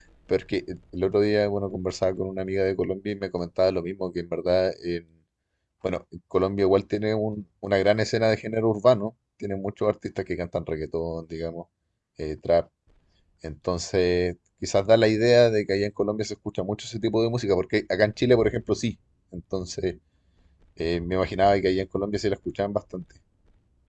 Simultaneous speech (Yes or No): No